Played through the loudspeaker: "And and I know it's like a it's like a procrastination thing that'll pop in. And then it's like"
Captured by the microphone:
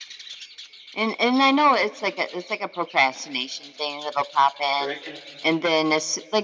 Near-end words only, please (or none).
or it can